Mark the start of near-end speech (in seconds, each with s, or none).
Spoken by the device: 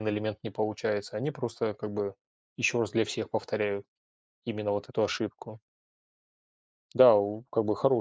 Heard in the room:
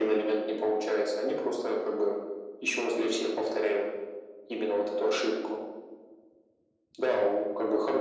none